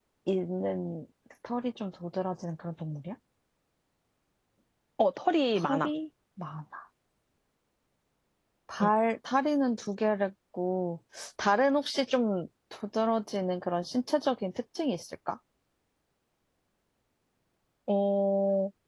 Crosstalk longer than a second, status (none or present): none